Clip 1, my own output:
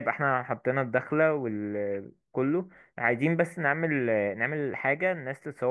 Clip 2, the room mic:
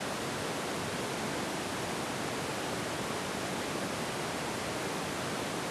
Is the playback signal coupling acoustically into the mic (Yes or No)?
No